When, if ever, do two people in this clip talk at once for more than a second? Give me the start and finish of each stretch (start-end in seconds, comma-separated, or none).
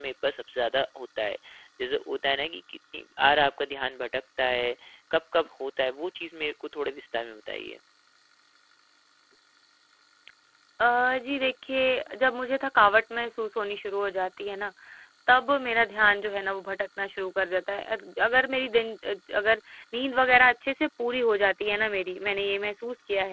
none